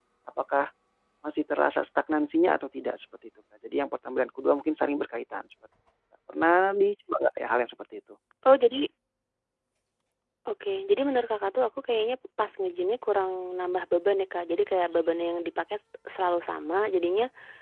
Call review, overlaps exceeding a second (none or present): none